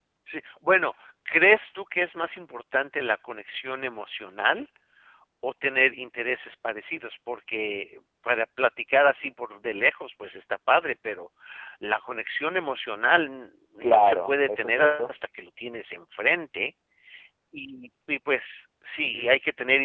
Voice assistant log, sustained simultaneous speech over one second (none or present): present